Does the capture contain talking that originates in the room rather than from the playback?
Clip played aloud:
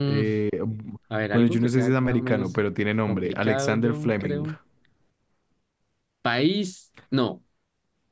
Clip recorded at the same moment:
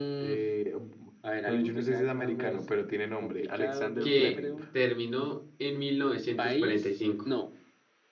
Yes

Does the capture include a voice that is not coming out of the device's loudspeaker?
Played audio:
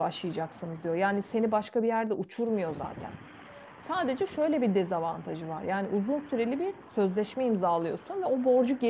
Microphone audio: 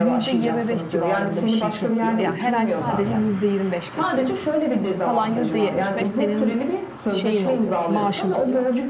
Yes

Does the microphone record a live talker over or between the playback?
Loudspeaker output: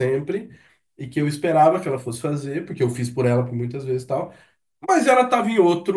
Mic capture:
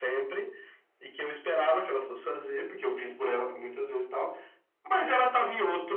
No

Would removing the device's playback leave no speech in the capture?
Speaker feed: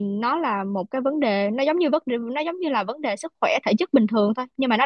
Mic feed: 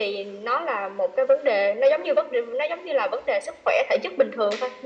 Yes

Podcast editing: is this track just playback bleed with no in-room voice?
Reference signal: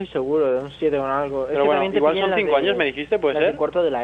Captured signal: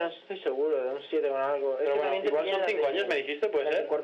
Yes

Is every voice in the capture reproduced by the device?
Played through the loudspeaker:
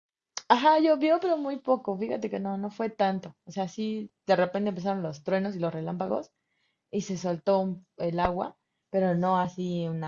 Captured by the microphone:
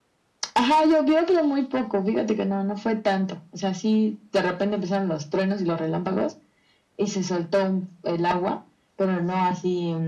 Yes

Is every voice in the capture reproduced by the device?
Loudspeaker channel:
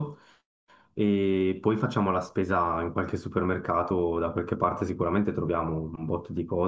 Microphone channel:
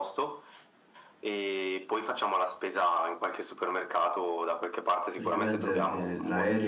No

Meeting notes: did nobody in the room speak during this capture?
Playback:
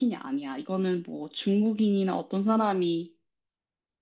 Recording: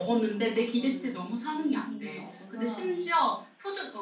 No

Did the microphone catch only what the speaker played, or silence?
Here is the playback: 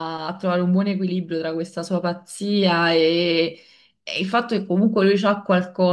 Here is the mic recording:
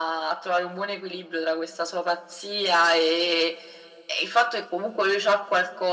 Yes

